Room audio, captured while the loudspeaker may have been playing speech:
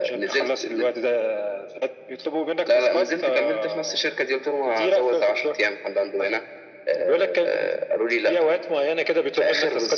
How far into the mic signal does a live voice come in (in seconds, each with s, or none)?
none